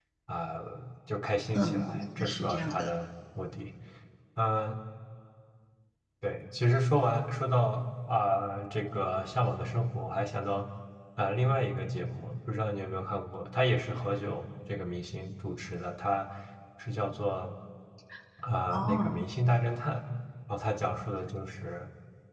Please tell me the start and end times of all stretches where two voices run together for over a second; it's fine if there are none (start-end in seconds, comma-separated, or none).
1.5-2.9